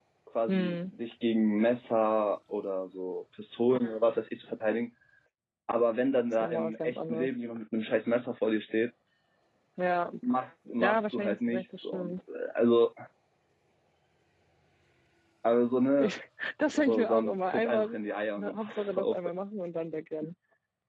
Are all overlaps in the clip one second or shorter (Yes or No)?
No